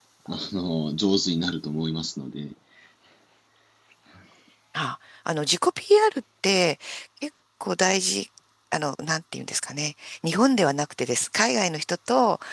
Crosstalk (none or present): none